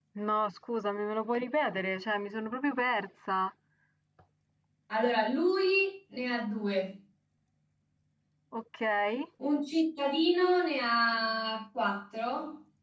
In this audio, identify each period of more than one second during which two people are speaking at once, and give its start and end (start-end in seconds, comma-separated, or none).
none